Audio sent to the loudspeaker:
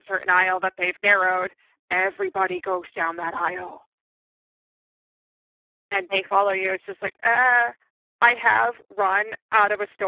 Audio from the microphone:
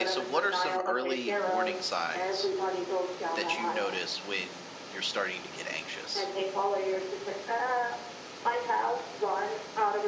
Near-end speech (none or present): present